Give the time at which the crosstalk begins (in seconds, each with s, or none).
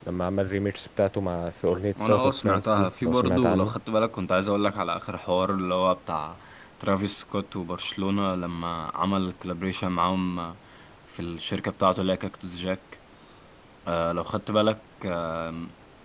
2.0 s